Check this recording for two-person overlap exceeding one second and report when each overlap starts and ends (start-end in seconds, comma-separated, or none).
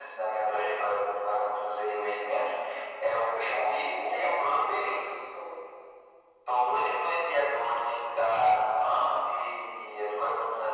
3.5-5.1